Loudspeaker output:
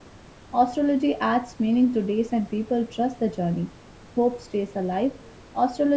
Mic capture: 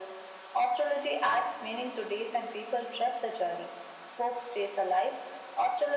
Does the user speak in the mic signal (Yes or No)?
No